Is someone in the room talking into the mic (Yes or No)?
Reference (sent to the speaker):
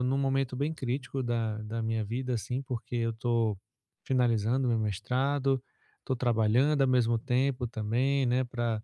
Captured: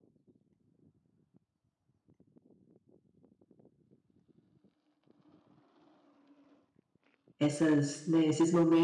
Yes